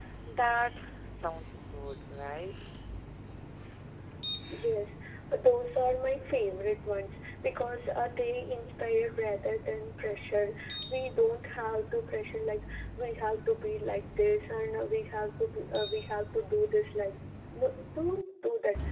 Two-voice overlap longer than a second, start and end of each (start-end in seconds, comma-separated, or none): none